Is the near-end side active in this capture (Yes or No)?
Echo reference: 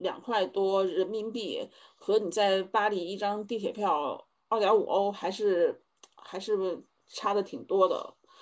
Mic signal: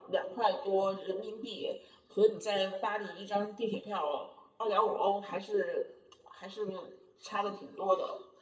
No